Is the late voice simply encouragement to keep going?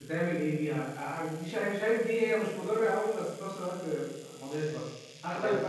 Yes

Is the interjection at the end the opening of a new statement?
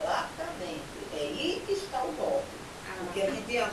No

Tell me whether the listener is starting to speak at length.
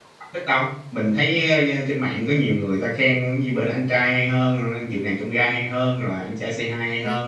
No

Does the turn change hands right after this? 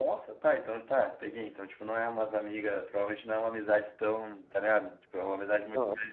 No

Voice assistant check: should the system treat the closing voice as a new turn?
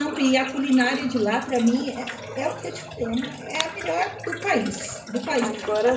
Yes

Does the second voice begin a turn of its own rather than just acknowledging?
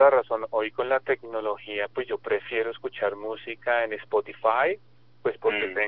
No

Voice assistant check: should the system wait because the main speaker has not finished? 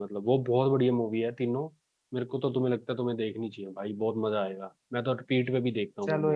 No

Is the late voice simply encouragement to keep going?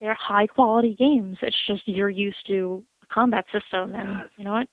No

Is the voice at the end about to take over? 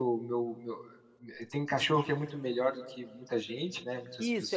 Yes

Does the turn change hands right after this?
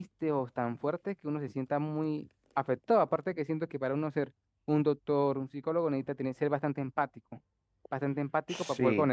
No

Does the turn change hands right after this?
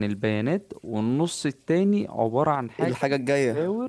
No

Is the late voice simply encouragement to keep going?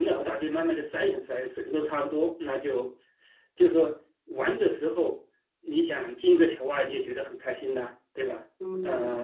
No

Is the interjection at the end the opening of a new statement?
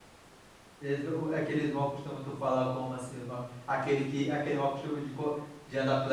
Yes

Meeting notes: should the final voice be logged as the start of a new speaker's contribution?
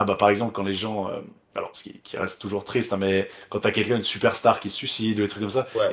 No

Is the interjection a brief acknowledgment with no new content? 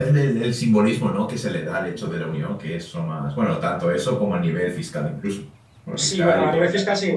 No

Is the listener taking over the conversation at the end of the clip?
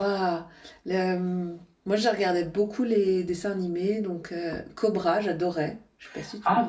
Yes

